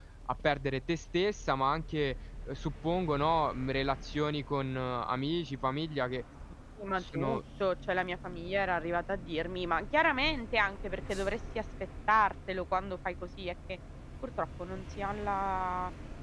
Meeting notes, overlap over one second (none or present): none